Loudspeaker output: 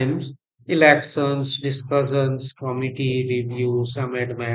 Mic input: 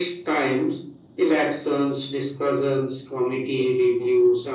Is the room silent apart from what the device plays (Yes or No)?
Yes